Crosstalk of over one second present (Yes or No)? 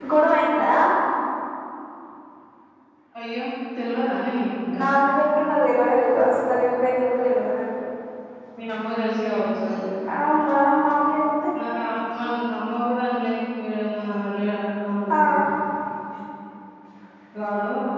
No